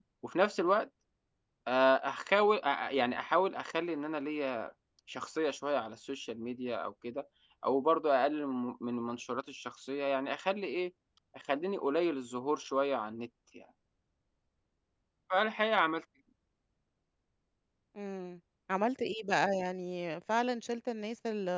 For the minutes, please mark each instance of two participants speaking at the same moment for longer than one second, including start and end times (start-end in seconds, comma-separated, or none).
none